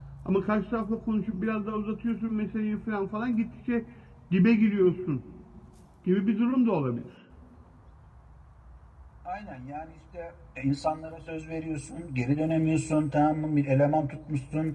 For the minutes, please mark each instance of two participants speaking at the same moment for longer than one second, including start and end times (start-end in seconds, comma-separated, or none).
none